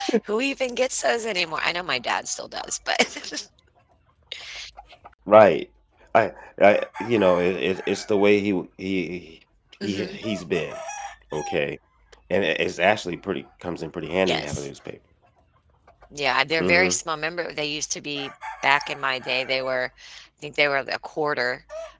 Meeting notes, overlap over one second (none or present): none